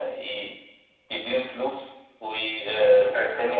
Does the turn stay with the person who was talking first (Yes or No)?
Yes